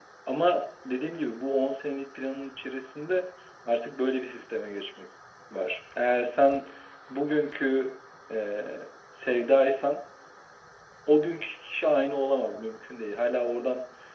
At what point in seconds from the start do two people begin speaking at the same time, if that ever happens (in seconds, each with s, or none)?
none